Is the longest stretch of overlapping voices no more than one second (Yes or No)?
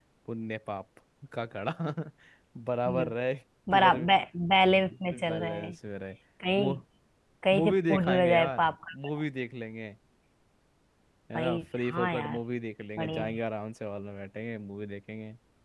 No